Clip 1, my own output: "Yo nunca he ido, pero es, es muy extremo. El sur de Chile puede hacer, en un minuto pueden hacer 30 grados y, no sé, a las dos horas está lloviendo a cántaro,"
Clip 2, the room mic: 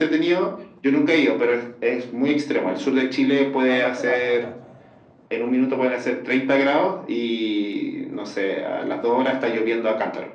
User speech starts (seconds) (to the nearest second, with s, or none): 4 s